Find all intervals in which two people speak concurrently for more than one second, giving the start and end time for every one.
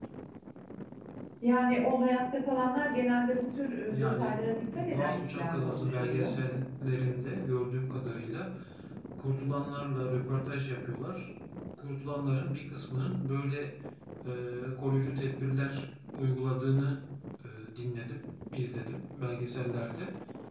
3.9-6.3

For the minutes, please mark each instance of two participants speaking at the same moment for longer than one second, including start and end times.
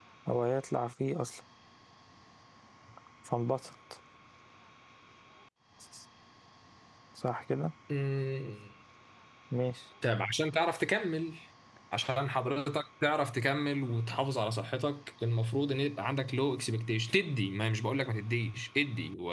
none

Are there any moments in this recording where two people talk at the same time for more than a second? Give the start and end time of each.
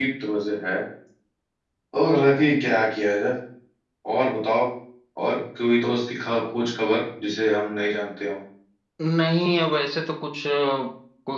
none

